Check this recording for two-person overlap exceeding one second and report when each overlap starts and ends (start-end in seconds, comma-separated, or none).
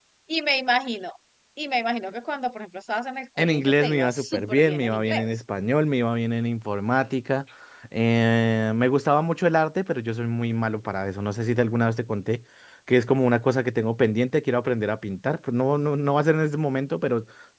3.4-5.3